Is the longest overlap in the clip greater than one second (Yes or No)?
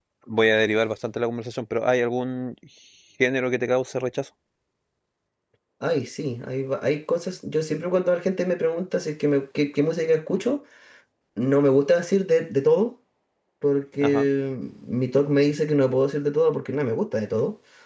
No